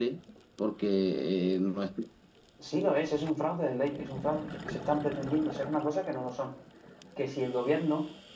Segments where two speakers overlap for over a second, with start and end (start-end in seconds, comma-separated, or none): none